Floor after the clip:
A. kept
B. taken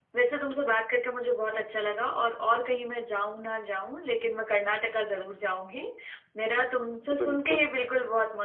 A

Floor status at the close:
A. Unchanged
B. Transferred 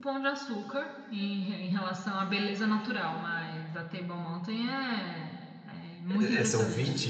B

